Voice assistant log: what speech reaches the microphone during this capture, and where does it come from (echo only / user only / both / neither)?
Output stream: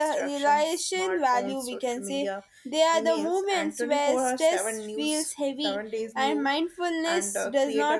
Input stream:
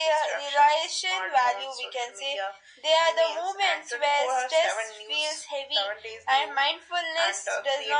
echo only